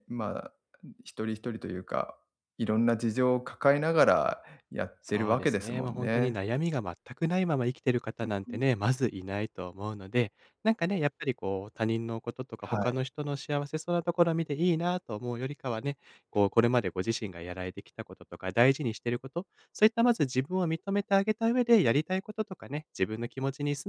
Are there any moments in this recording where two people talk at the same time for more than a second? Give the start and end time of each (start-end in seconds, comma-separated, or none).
5.1-6.4